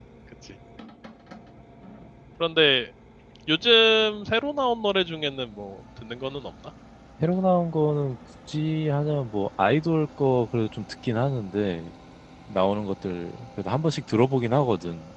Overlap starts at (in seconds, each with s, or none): none